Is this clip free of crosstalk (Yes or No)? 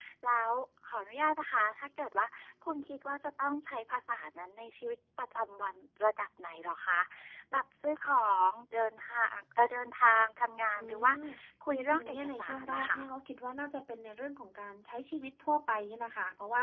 No